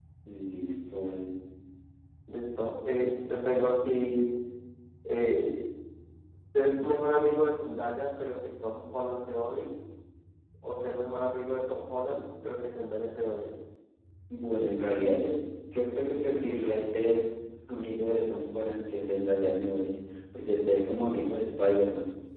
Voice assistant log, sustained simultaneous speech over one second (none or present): none